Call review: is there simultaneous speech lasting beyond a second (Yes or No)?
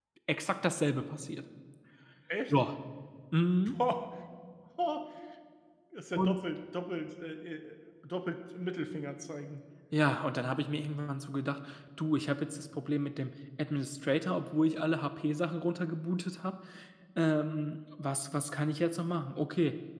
No